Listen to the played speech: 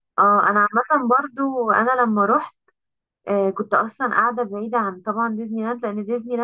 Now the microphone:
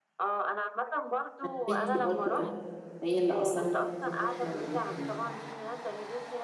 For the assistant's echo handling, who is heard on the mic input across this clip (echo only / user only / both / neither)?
both